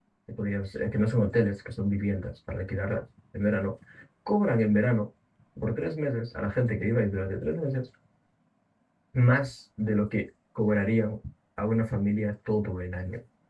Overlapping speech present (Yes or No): No